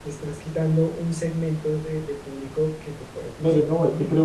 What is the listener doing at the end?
taking over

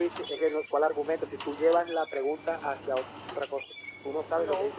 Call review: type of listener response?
listening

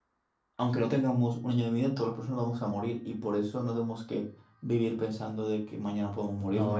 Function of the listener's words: taking over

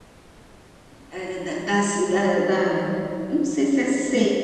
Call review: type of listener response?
listening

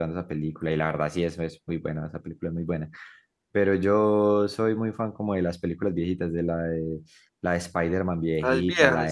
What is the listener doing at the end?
listening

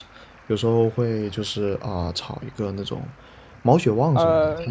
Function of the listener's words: taking over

